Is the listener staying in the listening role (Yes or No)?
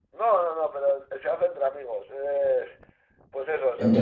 Yes